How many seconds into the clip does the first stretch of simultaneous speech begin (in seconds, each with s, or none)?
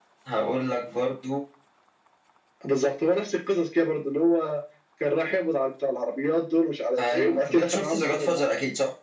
7.0 s